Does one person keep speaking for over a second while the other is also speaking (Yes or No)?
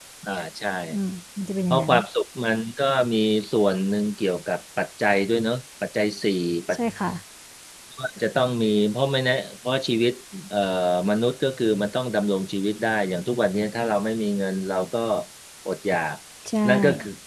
No